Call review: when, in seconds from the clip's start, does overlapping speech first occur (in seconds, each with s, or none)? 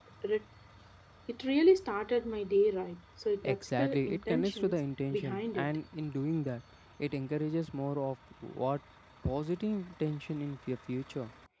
3.4 s